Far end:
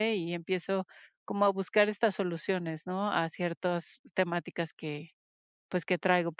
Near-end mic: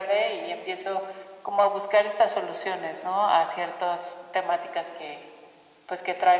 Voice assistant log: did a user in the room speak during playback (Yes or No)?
No